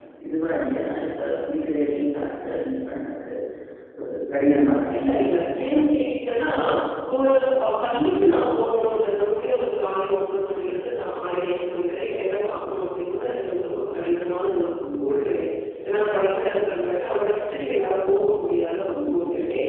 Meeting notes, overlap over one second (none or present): none